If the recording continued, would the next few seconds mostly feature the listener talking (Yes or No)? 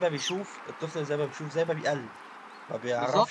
Yes